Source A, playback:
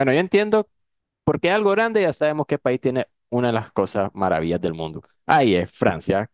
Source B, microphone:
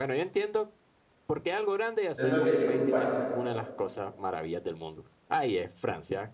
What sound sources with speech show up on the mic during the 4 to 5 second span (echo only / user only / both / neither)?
echo only